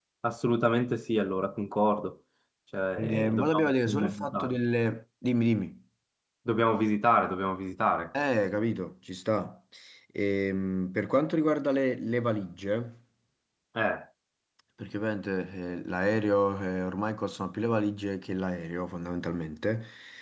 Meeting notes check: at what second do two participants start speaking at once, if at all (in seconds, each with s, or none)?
3.0 s